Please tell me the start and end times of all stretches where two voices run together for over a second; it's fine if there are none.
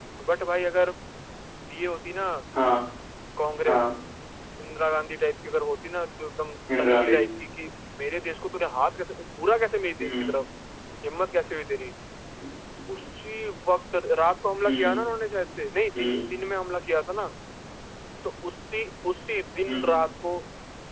none

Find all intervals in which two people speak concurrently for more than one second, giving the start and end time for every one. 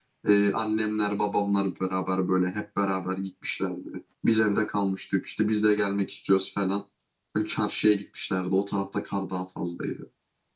none

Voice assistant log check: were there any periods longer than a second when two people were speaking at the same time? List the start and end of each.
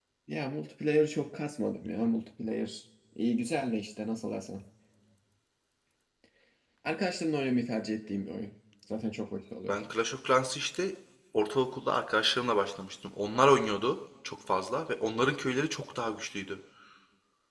none

